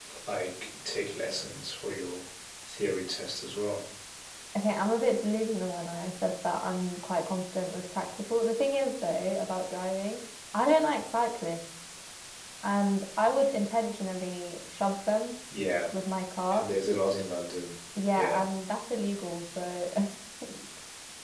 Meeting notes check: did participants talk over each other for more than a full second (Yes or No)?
No